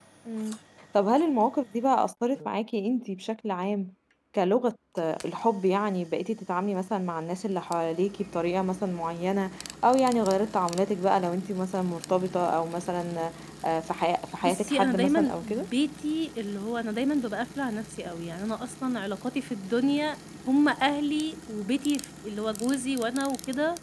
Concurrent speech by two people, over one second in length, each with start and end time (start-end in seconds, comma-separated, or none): 14.4-15.7